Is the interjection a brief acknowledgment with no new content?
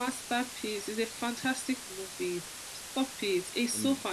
Yes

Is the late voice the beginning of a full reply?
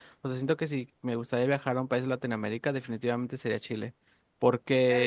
Yes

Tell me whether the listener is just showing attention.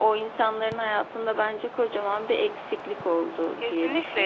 No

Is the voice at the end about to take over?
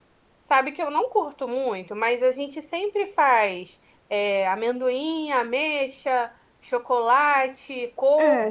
Yes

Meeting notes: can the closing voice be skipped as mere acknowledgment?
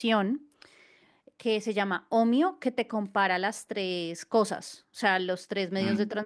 Yes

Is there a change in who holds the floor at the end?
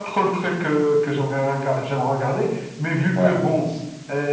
No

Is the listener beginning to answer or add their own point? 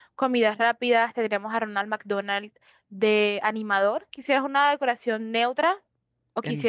Yes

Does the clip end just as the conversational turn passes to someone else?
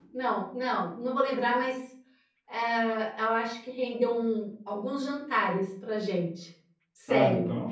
Yes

